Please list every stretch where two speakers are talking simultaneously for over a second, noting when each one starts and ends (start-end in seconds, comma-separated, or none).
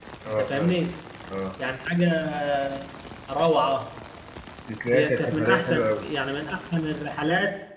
4.9-6.1